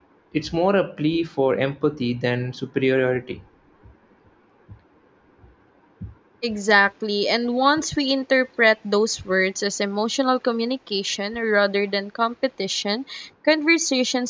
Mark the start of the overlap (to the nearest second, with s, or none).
none